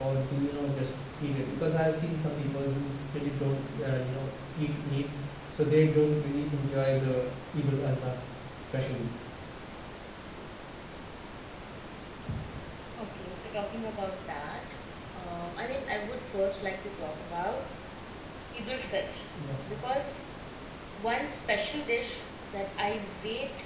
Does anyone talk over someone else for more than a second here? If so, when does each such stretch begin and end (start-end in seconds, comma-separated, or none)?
none